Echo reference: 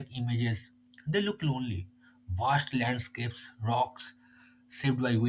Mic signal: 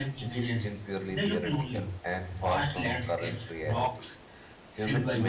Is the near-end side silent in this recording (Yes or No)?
No